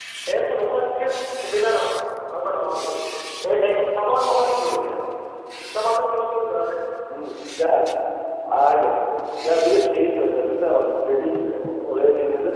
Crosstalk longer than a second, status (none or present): none